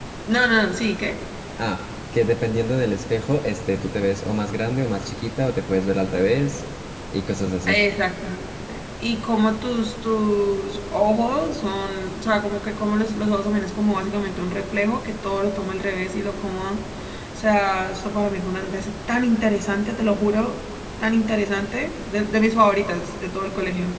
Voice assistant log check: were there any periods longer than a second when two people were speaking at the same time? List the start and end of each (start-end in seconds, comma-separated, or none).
none